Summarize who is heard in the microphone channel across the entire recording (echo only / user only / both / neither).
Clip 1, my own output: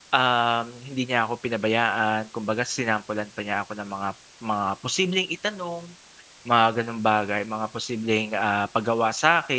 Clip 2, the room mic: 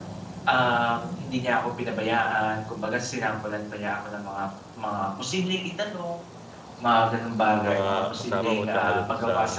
both